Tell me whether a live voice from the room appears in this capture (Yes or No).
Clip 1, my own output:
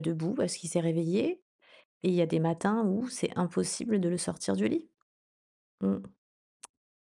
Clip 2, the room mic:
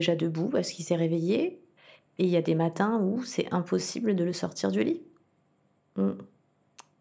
No